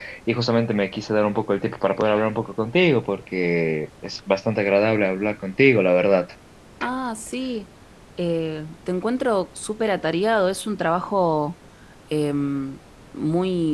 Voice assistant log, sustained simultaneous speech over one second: none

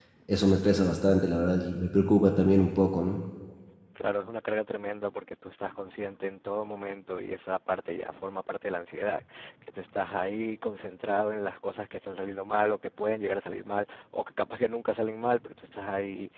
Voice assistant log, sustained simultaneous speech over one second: none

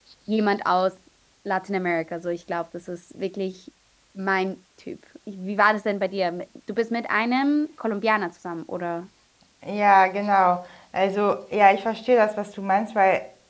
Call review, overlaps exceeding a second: none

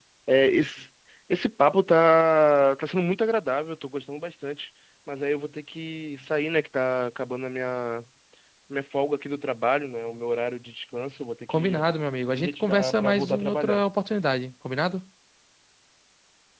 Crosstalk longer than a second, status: present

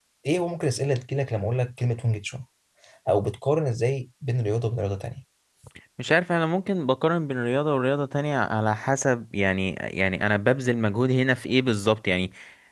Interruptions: none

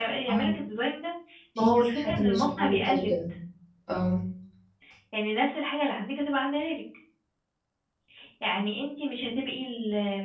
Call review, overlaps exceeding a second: present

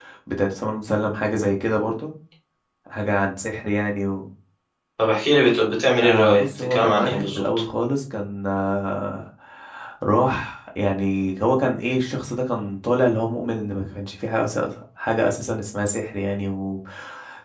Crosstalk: present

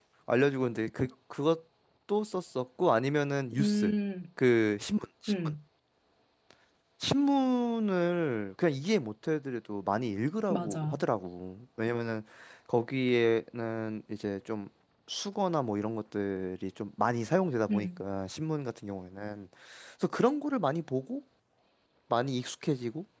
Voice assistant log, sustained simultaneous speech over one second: none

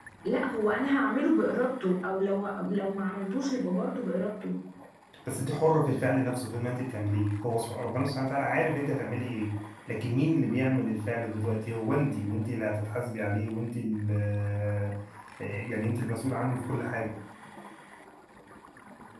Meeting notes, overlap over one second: none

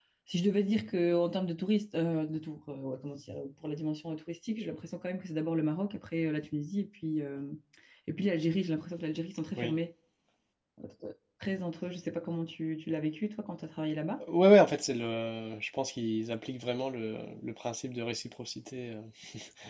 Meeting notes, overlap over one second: none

